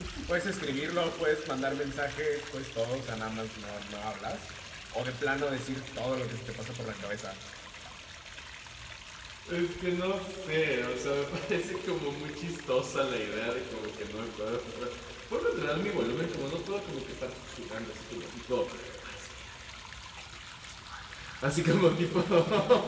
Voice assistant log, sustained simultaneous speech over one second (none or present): none